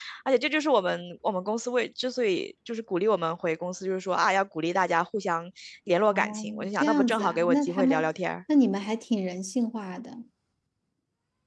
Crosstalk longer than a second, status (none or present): present